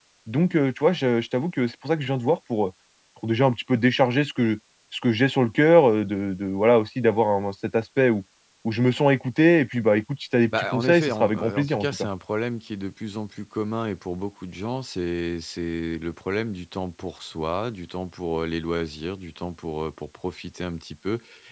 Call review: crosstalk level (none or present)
present